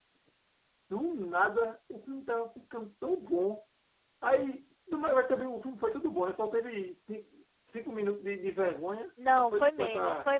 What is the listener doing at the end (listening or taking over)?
taking over